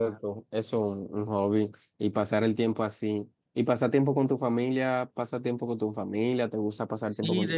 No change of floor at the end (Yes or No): No